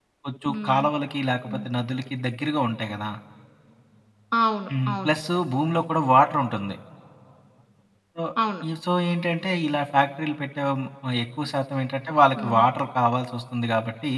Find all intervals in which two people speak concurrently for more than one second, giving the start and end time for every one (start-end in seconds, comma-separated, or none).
none